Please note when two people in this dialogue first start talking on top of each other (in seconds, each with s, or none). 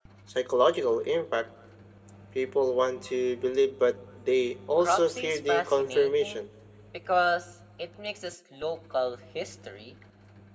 4.8 s